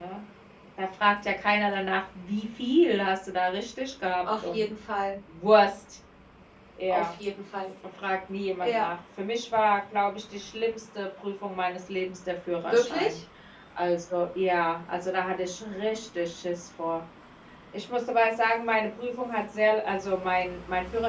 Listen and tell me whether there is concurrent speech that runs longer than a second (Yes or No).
No